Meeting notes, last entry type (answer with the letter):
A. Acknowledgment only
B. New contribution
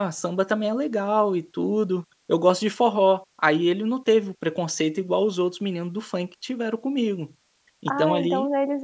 B